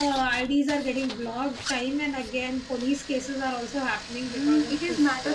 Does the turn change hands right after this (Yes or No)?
Yes